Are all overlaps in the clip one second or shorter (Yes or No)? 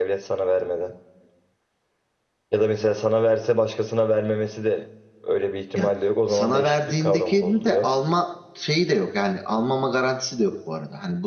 No